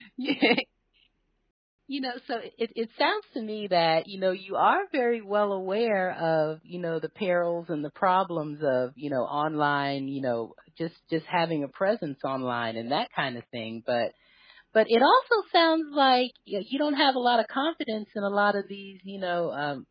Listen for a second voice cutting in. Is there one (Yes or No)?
No